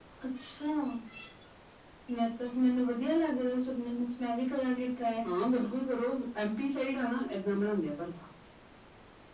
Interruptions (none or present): none